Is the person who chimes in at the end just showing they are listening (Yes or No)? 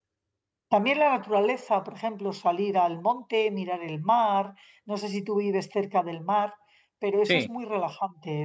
Yes